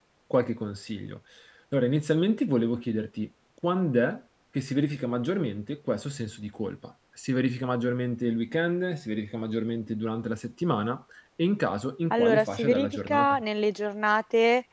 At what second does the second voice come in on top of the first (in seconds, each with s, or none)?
12.1 s